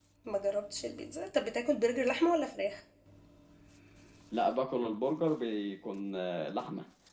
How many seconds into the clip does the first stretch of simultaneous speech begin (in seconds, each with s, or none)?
none